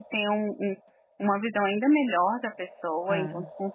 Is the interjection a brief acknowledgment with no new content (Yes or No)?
Yes